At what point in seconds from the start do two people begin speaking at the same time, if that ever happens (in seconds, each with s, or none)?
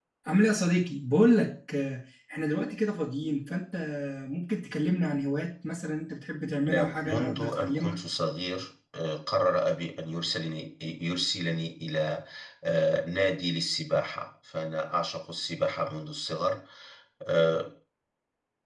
6.7 s